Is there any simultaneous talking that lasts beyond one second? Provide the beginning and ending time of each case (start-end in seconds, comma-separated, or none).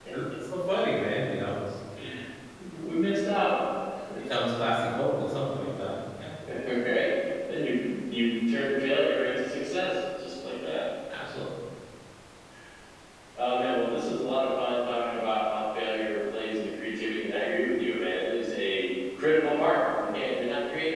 none